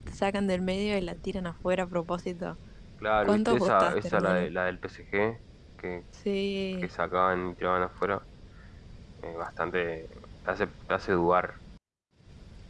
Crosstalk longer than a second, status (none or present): present